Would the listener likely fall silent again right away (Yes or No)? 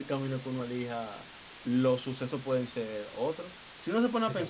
Yes